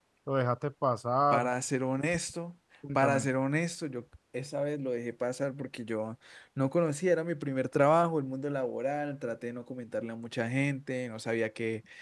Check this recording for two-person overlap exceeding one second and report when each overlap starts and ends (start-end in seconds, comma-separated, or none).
none